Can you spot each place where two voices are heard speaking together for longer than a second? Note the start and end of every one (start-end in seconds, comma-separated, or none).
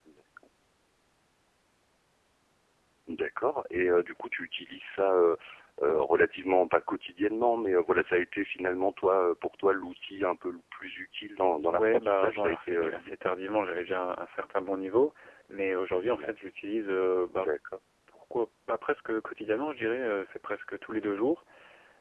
11.7-13.1